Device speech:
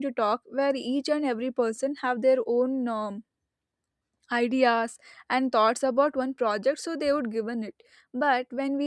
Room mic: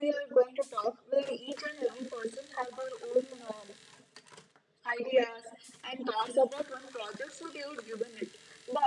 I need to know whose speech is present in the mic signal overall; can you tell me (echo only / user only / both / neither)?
echo only